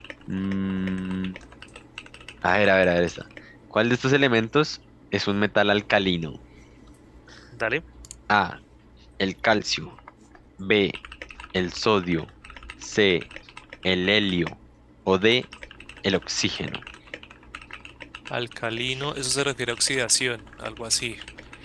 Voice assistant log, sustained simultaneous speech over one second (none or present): none